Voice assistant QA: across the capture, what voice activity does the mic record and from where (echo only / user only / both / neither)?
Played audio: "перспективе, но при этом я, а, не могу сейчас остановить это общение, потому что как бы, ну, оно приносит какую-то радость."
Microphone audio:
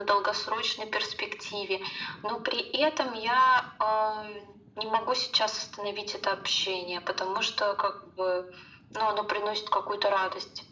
echo only